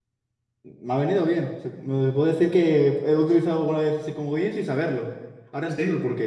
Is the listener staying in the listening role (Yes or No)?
No